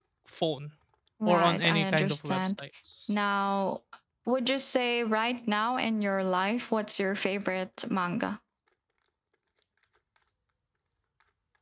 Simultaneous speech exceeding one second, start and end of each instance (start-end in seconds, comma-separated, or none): 1.3-2.6